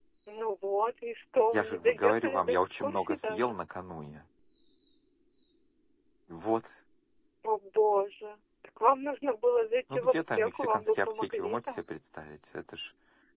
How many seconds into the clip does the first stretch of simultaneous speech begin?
1.5 s

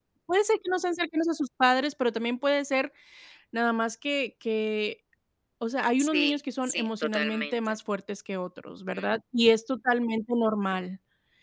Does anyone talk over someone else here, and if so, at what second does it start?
6.0 s

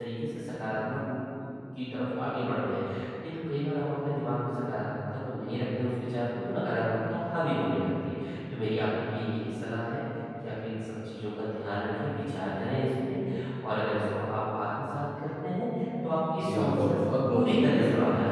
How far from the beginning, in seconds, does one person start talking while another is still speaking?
16.4 s

